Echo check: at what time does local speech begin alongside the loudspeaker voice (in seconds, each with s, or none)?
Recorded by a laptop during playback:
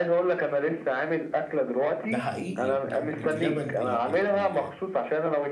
2.1 s